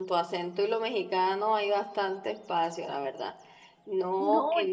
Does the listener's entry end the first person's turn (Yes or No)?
Yes